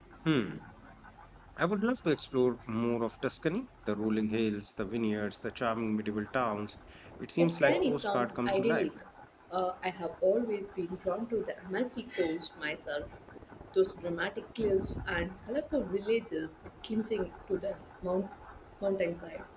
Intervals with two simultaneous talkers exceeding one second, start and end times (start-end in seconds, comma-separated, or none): 7.4-8.9